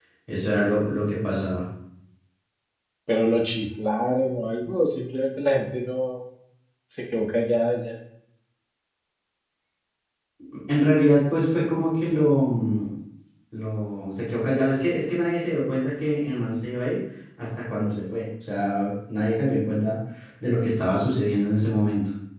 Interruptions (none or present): none